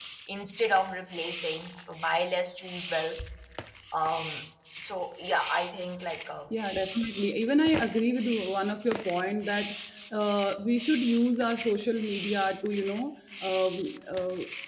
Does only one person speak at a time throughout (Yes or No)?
Yes